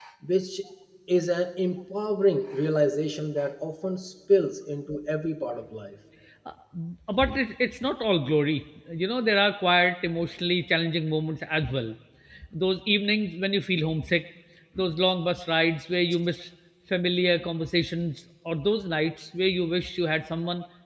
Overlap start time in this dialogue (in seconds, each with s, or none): none